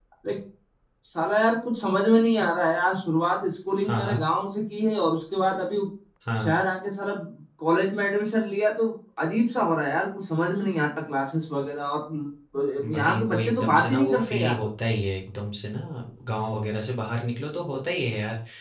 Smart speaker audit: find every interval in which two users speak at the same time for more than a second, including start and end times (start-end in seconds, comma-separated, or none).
12.9-14.6